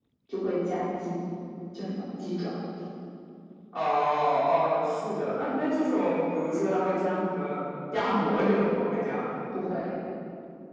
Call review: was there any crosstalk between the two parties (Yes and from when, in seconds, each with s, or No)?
No